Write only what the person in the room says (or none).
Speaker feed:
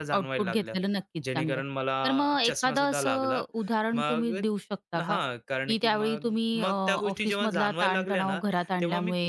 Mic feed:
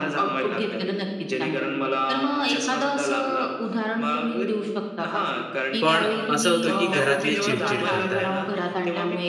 पण असं होतं, की घरातले चिडचिड करतात.